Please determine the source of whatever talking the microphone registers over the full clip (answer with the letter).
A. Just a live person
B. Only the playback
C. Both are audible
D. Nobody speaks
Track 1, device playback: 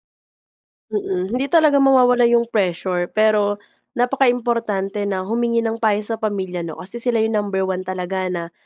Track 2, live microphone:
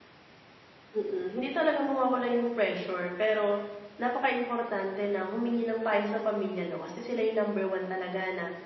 B